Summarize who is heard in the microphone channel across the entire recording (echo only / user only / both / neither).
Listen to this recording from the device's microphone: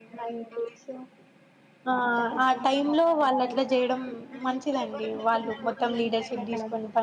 both